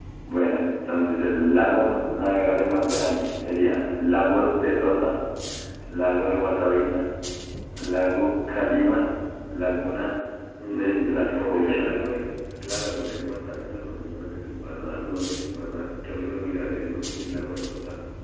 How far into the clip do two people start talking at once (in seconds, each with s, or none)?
10.7 s